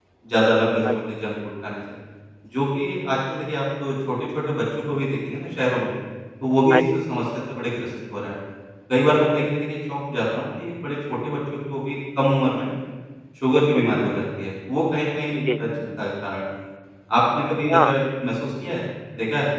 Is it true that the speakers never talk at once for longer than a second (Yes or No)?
Yes